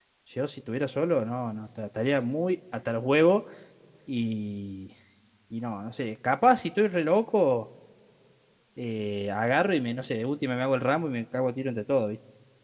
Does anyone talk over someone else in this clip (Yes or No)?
No